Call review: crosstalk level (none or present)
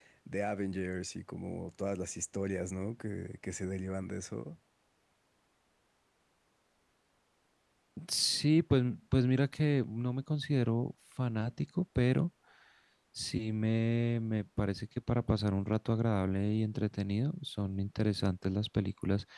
none